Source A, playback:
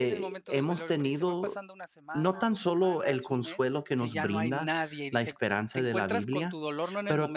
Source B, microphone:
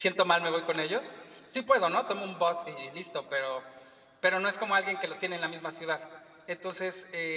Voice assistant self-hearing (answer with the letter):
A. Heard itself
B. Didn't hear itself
B